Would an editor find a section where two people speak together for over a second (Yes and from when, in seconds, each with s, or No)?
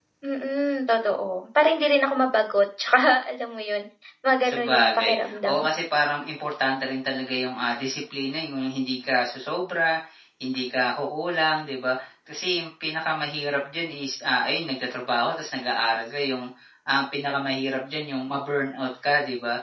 Yes, from 4.4 s